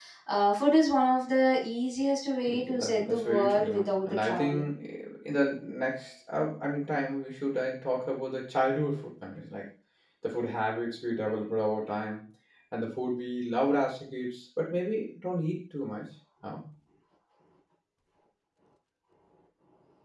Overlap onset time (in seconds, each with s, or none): 2.5 s